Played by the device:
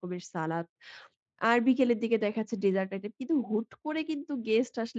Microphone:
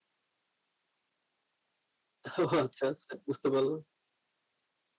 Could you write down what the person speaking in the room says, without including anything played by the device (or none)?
ও আচ্ছা, আচ্ছা, বুঝতে পারলাম।